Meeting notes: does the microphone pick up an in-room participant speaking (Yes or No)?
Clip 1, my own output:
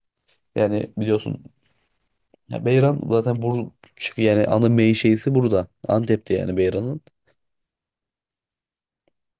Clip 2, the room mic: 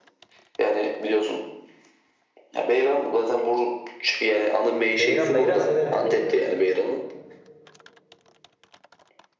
Yes